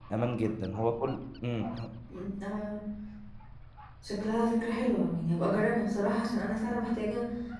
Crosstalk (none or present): none